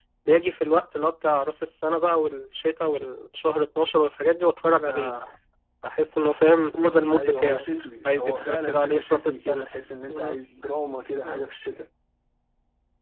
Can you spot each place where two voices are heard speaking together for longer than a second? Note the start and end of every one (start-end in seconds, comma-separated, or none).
8.1-9.7